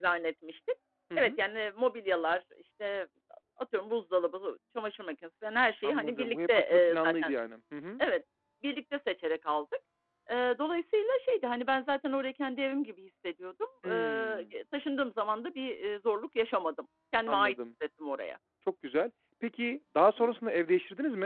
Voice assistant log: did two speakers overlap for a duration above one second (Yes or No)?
Yes